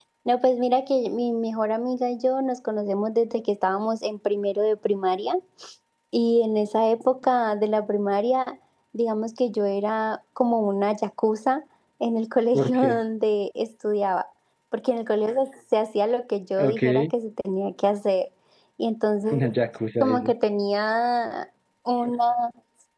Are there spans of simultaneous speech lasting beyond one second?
No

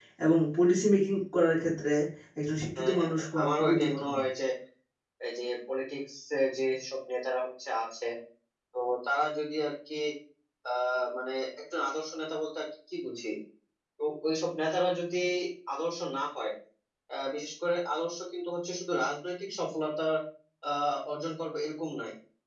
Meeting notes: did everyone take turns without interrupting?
No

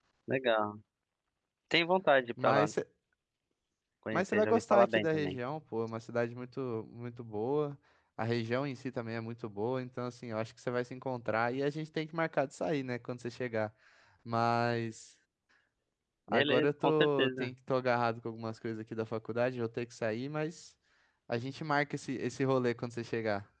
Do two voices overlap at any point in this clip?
Yes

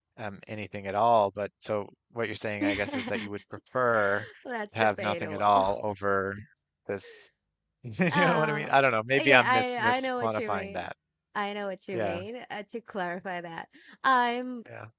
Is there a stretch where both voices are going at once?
Yes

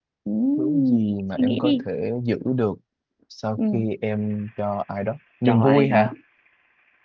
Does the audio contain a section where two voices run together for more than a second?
Yes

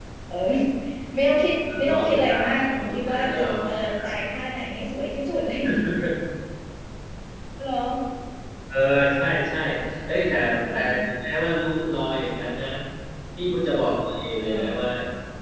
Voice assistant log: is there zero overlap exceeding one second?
No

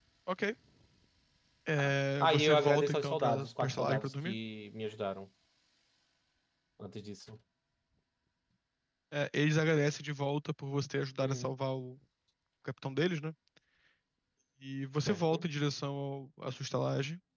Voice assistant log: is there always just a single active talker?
No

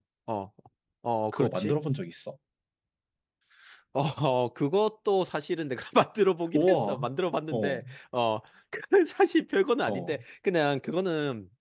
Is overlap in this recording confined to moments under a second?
Yes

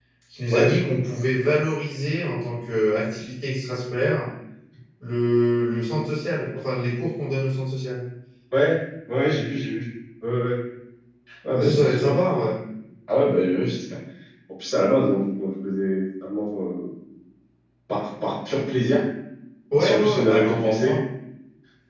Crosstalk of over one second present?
Yes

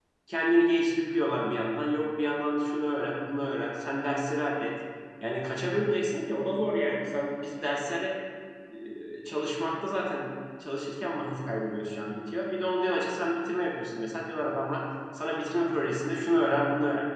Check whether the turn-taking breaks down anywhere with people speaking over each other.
No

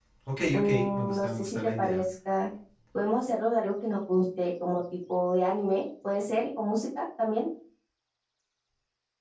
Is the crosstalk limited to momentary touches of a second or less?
No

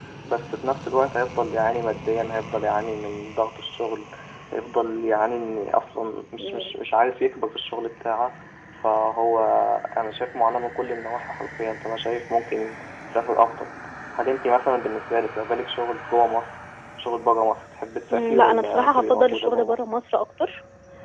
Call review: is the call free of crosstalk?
No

